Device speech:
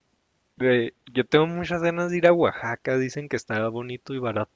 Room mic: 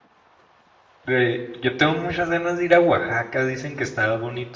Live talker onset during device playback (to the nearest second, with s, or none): none